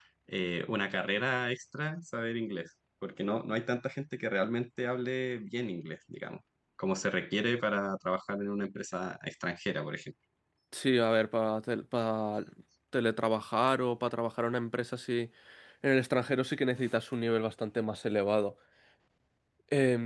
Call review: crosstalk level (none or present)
none